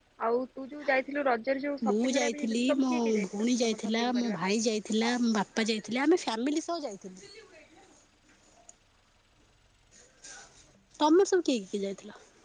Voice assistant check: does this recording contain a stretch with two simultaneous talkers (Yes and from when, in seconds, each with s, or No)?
Yes, from 1.8 s